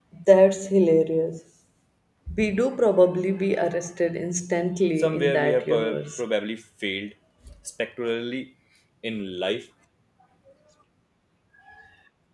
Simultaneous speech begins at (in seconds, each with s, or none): 5.0 s